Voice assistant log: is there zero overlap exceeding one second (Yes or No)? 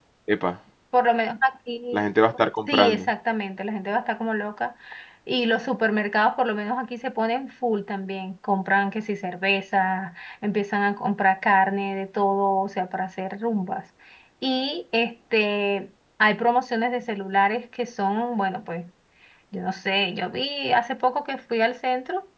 Yes